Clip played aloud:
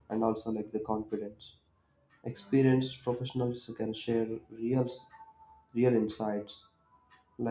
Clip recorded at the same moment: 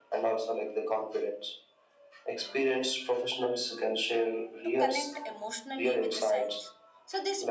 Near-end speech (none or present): present